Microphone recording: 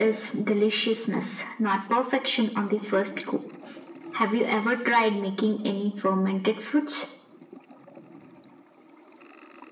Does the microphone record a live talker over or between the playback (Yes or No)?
No